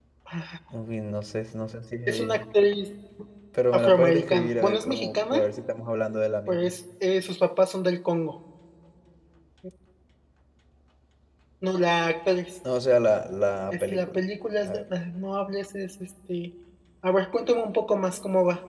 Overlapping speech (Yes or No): Yes